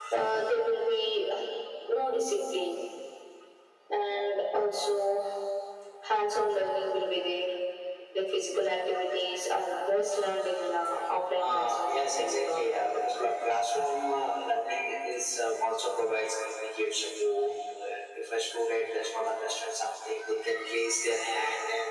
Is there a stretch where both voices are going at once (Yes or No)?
Yes